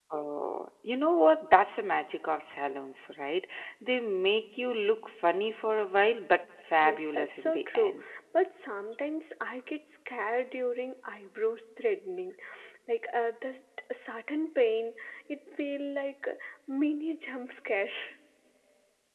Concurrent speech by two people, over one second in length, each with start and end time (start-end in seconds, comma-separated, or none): 6.8-8.0